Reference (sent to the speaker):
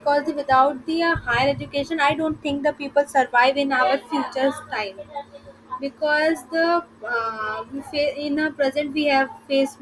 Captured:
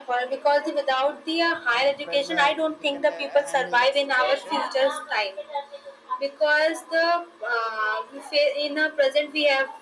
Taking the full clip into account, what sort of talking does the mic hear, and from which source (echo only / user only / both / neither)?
both